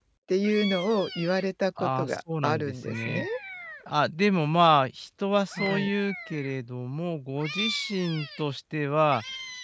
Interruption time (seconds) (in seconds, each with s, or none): 1.8 s